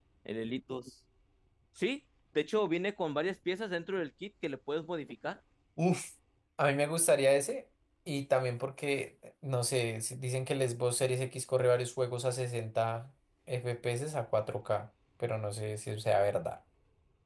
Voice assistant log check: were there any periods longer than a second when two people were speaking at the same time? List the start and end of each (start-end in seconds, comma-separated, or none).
none